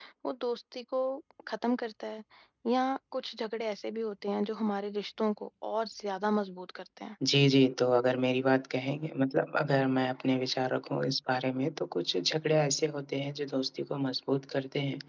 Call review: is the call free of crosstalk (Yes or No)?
Yes